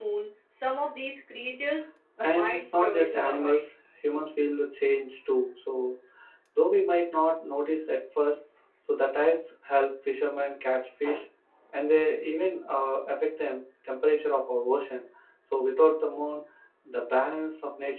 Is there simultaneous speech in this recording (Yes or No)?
Yes